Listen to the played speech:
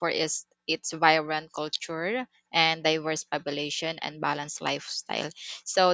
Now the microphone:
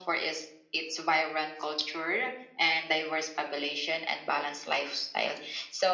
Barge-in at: none

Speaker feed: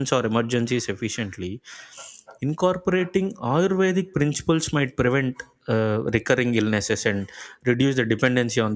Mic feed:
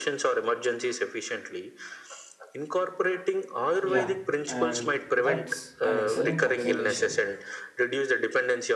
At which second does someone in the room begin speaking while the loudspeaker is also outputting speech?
4 s

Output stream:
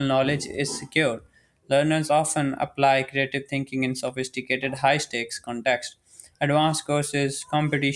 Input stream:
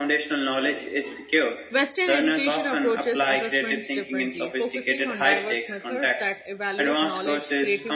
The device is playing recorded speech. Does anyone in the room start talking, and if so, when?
2 s

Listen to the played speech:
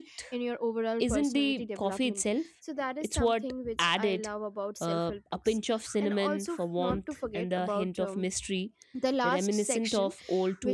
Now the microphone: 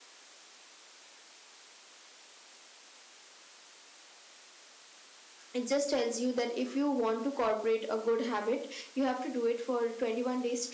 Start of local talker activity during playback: 6 s

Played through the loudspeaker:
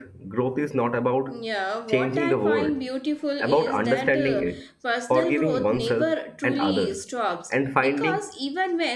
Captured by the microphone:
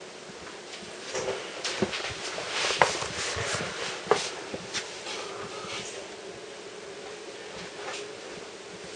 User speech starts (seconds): none

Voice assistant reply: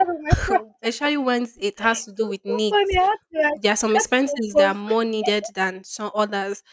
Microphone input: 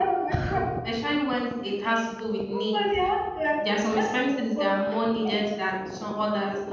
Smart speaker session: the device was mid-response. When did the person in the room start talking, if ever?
none

